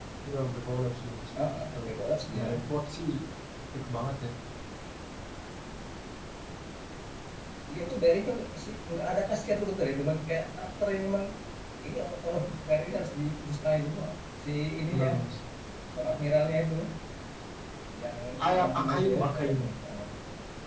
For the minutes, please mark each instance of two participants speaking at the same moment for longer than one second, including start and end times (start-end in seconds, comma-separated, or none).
18.5-19.7